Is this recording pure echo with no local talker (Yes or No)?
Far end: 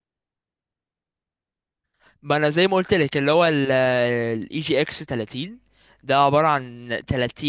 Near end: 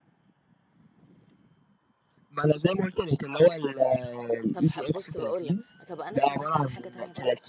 No